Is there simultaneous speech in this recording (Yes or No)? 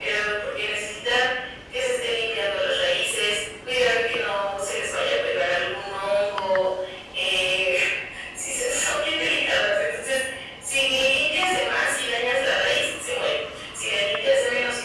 No